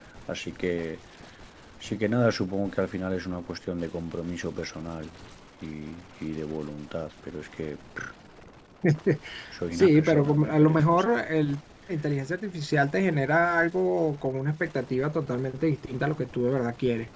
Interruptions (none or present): present